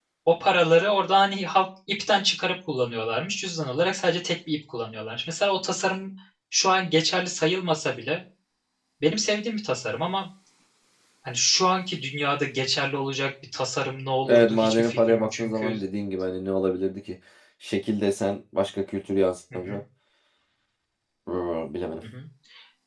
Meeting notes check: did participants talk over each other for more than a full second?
Yes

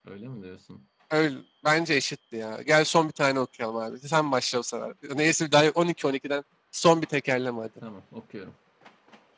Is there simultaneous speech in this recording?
No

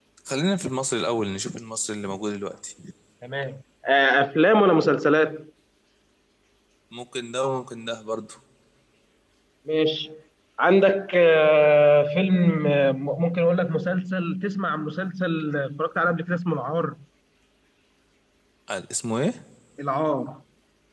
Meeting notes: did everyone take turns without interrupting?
Yes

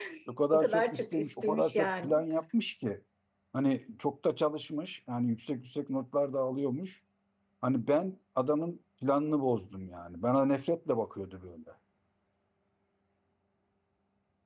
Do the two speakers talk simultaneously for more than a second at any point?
Yes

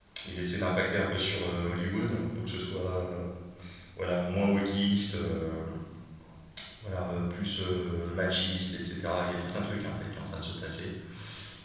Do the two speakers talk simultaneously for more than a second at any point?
No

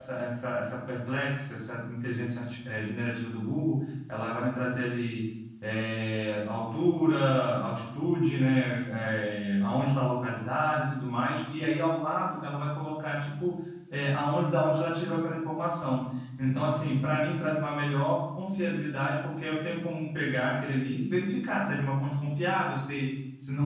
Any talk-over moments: No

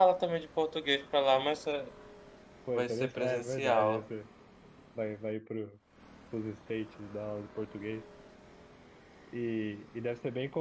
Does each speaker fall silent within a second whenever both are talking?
No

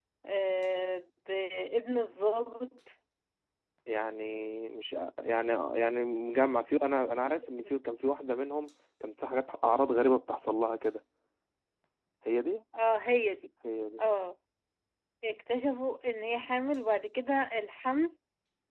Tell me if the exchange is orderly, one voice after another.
Yes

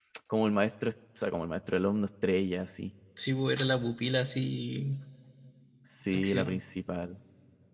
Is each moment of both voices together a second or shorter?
Yes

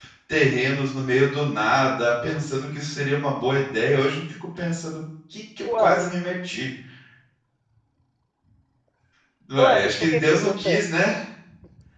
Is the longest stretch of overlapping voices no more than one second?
No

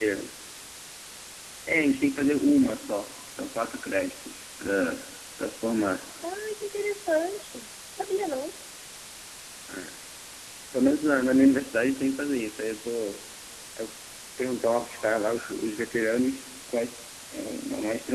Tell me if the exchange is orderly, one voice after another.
Yes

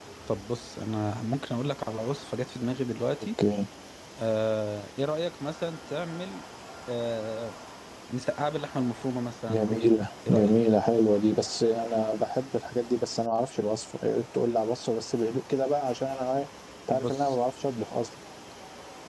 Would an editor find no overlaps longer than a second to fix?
Yes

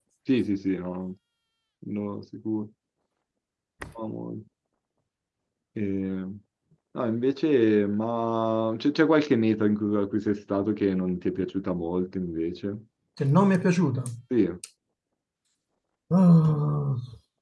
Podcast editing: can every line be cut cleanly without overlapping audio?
Yes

